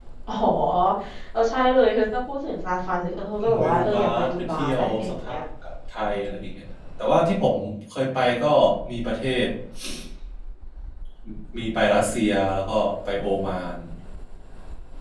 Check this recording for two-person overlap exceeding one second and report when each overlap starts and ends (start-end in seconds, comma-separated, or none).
3.4-5.4